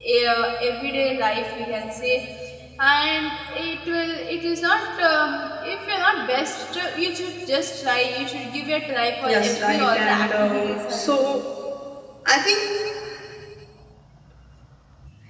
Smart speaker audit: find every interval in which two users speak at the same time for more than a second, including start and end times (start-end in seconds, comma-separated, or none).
9.2-11.4